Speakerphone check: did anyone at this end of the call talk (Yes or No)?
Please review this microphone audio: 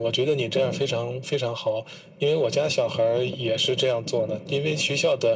No